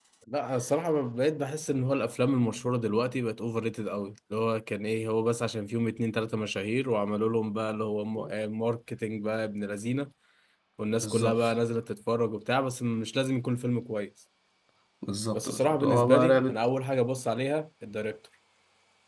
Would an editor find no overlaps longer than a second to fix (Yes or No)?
No